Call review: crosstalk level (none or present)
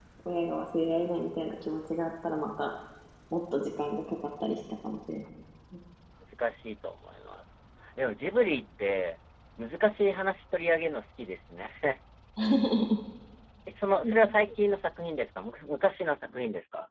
none